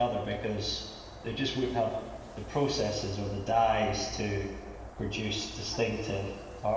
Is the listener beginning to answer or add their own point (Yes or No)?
No